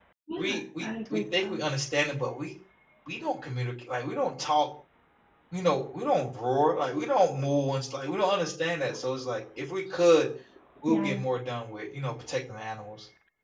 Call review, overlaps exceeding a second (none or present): present